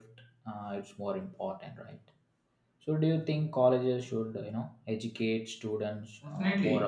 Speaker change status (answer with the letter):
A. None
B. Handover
B